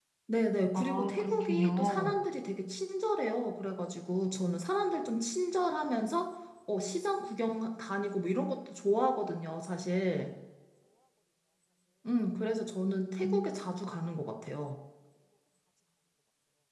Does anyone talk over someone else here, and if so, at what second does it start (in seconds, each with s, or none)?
0.8 s